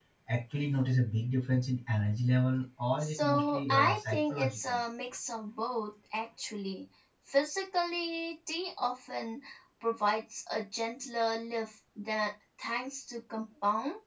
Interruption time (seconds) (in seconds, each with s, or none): 3.0 s